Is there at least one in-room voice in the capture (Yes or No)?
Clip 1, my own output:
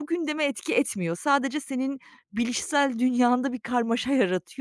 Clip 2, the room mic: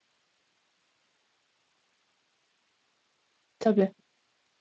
Yes